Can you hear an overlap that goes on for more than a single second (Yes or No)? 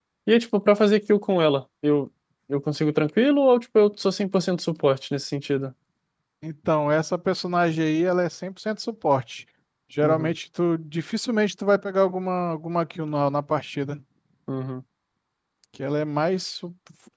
No